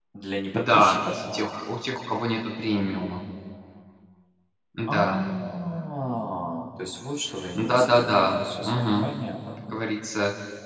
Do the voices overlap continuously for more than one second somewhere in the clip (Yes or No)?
Yes